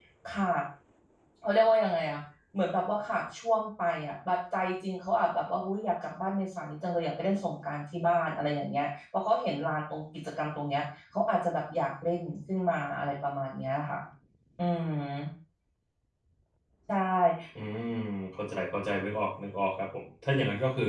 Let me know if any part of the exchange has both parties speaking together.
No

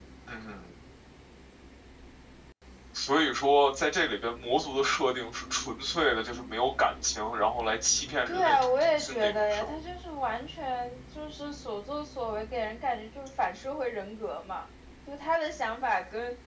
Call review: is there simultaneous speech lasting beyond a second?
Yes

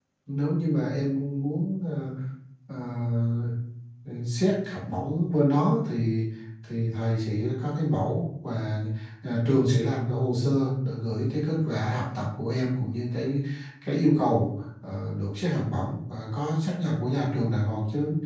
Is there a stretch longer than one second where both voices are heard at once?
No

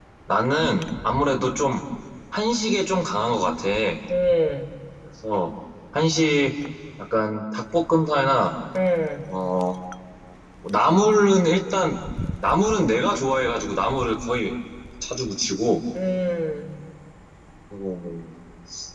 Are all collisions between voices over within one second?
Yes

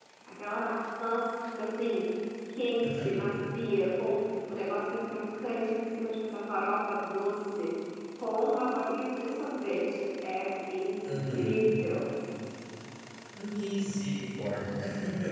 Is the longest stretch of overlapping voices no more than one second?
Yes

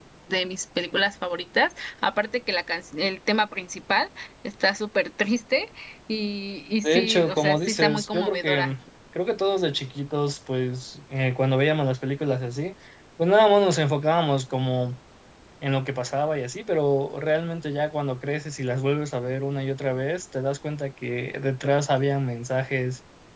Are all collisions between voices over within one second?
No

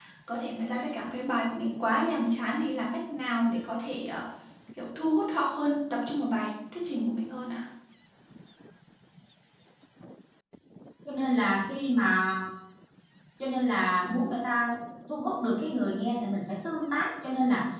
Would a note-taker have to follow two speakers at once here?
No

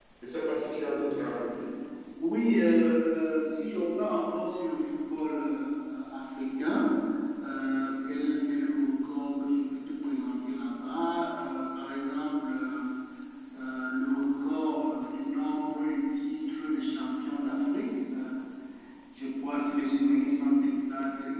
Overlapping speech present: No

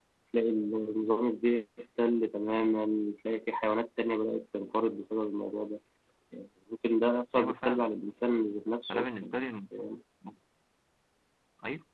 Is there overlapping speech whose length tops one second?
No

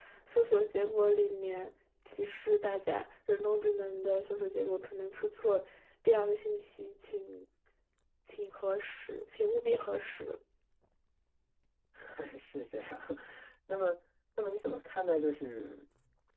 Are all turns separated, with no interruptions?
Yes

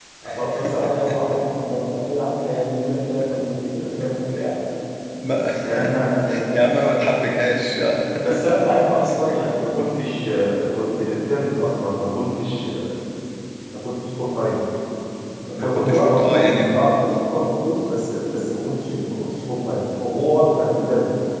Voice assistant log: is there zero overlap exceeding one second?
No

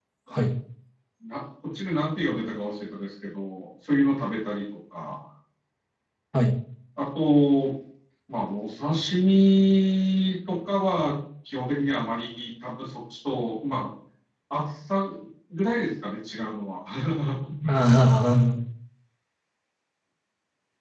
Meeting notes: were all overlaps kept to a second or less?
Yes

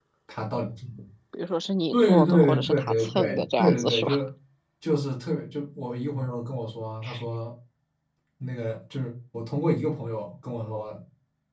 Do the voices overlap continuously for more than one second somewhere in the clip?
Yes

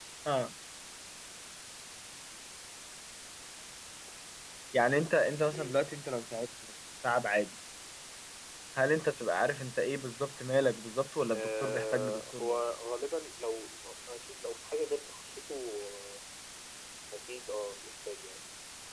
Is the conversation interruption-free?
No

